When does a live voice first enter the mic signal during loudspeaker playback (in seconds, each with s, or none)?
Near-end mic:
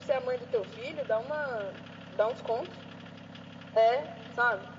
none